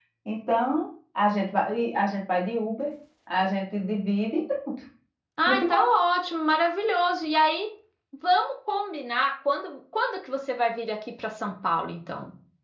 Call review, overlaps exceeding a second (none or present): none